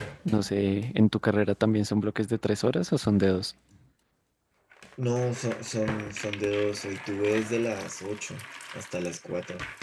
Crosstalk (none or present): none